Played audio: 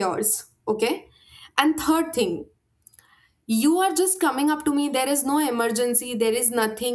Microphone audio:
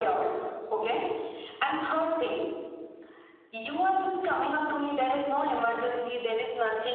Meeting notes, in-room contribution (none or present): none